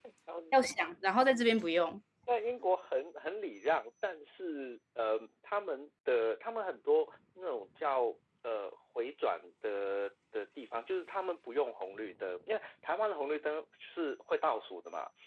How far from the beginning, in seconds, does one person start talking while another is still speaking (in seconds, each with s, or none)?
none